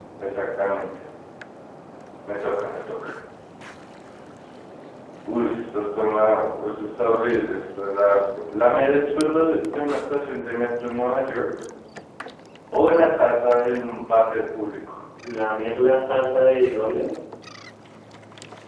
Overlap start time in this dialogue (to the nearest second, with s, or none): none